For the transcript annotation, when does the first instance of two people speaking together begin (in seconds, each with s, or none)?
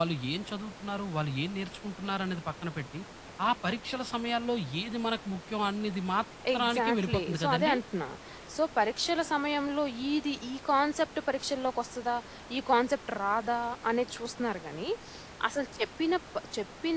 6.4 s